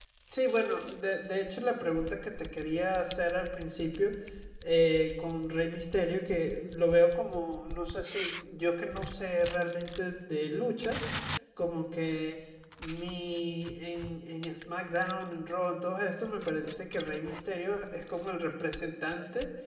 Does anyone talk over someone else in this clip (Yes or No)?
No